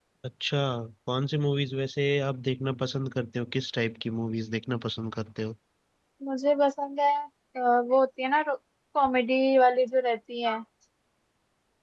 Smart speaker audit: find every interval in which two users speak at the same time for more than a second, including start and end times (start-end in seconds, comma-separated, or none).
none